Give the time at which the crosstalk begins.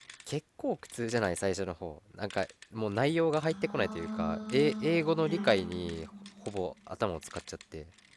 3.5 s

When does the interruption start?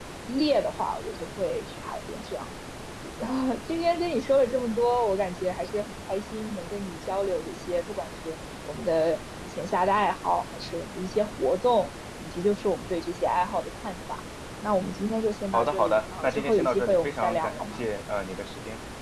15.5 s

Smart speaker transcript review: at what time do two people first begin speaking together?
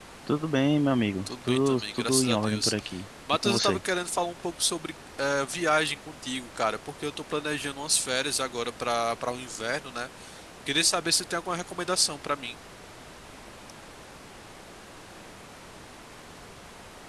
1.3 s

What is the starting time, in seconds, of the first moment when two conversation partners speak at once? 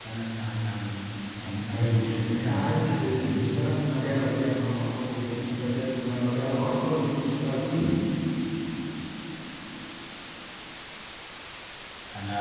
1.7 s

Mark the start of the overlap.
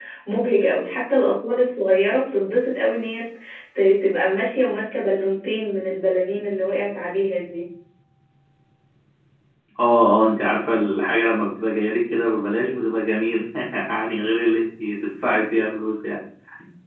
none

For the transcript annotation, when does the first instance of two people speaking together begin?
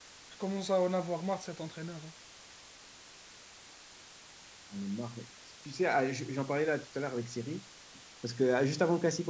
none

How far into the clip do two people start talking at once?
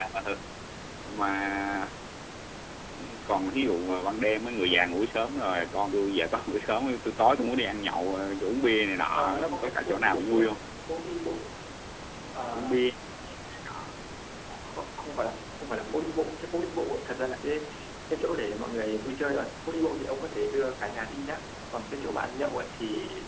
9.1 s

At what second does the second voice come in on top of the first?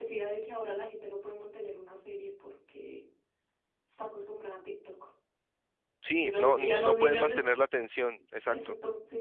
6.2 s

